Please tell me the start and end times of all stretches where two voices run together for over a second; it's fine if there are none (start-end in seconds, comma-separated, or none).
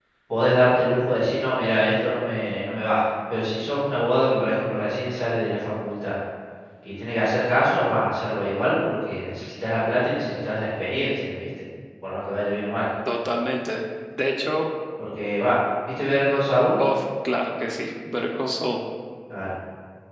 none